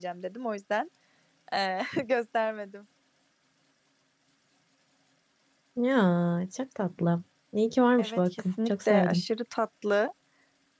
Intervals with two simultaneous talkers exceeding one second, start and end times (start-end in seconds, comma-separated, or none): 8.0-9.2